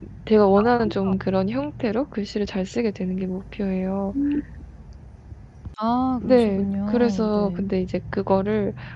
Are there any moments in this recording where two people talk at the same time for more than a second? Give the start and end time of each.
6.2-7.7

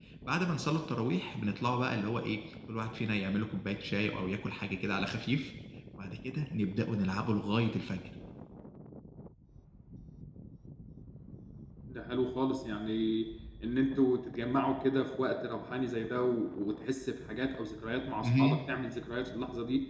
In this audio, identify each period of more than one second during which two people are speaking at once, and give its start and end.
none

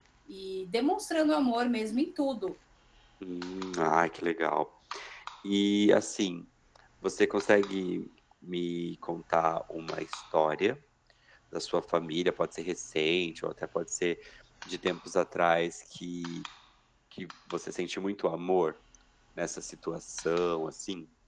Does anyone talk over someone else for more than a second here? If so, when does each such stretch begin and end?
none

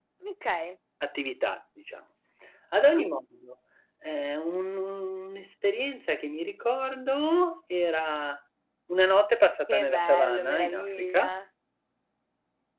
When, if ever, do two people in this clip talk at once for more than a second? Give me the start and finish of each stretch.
9.7-11.3

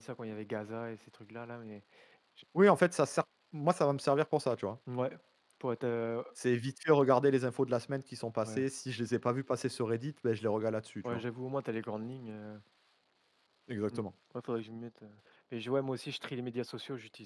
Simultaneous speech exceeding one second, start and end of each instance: none

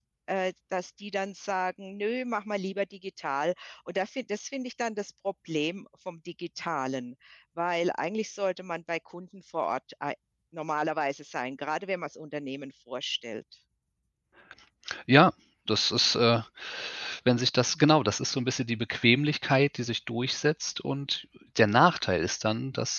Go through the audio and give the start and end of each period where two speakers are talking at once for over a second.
none

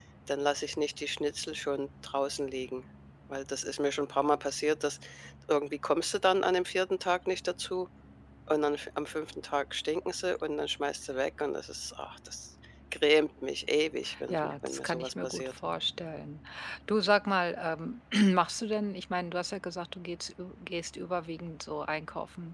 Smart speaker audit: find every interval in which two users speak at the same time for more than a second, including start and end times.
14.3-15.5

